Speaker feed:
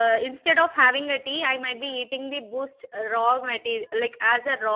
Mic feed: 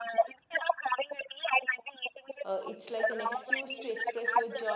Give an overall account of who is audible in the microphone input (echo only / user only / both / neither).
both